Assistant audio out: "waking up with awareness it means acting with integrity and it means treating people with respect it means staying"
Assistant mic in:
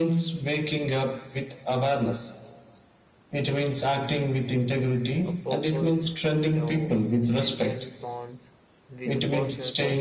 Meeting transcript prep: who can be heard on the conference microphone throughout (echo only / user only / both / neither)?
both